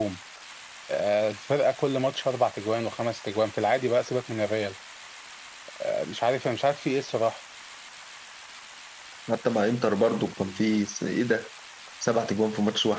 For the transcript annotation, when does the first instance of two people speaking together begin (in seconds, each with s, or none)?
none